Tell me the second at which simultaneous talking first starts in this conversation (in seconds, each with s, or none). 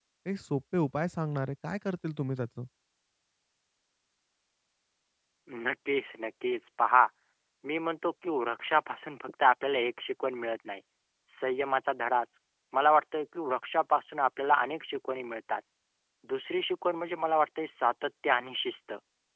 none